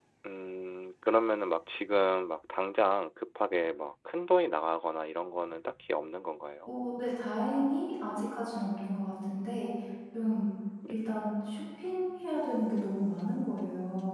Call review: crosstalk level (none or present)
none